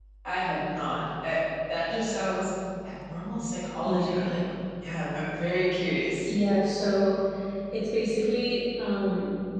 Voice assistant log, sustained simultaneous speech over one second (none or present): none